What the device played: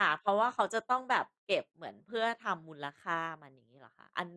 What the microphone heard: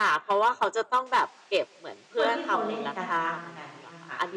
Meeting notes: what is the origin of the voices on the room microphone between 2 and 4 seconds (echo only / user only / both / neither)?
both